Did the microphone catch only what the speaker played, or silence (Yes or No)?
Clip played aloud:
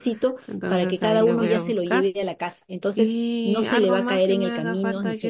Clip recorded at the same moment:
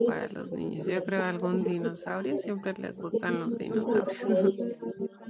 No